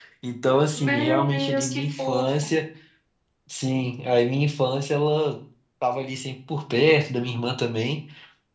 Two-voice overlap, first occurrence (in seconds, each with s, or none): 0.8 s